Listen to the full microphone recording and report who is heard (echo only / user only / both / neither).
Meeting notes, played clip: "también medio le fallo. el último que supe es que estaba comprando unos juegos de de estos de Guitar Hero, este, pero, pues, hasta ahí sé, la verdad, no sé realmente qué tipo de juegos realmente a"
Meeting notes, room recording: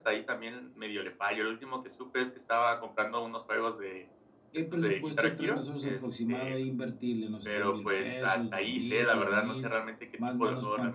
both